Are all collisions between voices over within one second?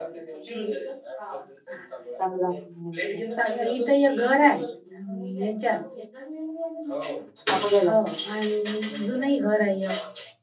Yes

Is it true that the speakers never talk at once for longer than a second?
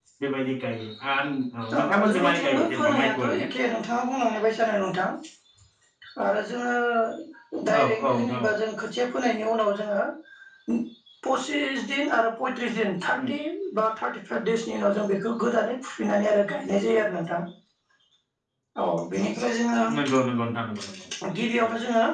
No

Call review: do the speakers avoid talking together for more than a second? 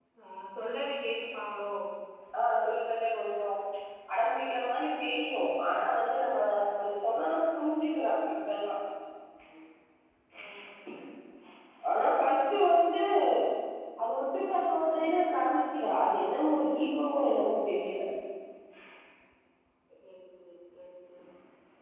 Yes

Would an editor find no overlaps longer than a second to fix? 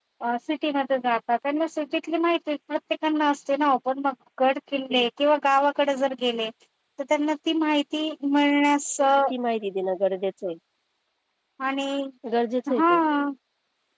Yes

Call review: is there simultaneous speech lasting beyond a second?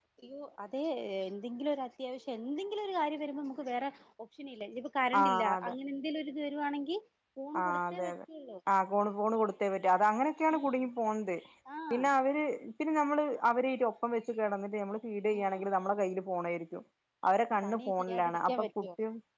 Yes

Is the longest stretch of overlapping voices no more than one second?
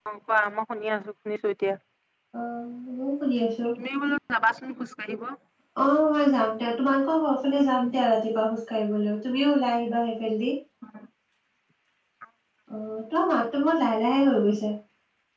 Yes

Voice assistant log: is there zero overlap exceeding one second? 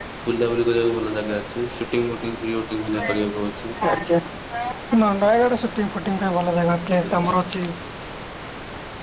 Yes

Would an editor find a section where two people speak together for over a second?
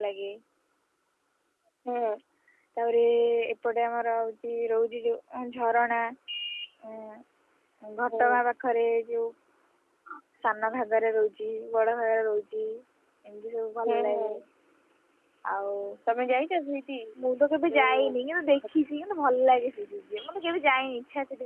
No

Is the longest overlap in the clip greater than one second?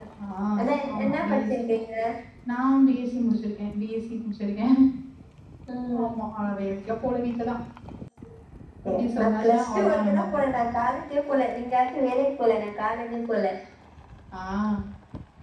Yes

